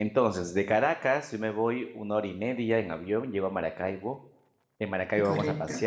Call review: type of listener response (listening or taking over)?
listening